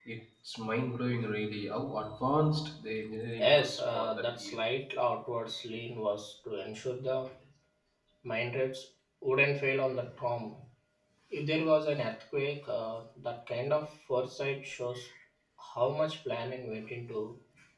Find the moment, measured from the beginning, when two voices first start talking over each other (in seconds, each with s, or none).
3.4 s